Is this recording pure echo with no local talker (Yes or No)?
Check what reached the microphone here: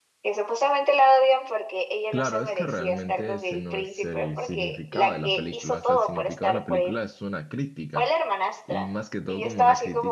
No